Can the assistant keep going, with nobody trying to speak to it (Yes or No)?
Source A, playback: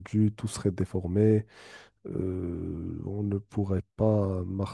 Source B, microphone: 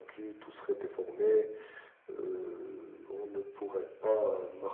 Yes